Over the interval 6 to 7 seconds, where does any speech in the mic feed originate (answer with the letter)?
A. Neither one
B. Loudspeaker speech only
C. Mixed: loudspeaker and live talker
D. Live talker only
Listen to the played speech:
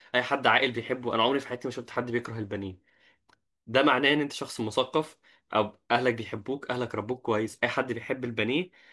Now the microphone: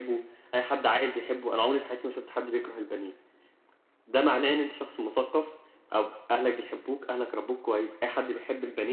B